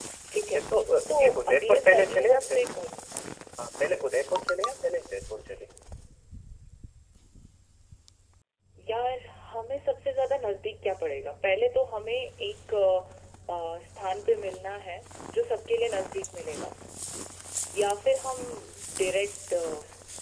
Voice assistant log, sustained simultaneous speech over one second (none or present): present